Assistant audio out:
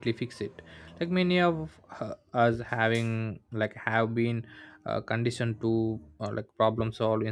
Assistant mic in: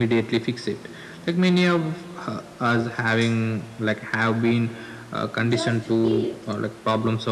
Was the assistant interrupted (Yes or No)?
Yes